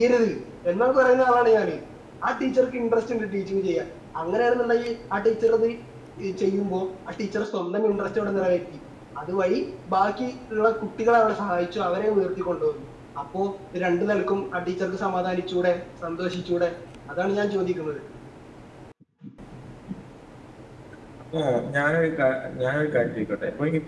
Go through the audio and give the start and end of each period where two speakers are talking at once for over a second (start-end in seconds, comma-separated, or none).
none